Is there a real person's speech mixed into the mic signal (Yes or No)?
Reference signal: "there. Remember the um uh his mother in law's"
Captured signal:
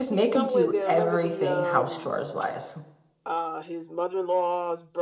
Yes